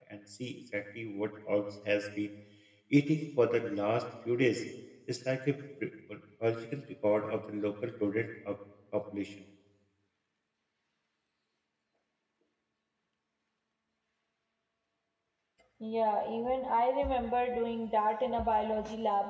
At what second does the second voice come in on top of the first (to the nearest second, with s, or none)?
none